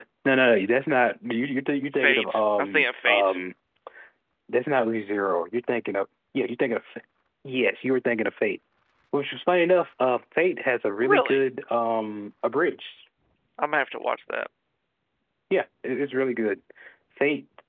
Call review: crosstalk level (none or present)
present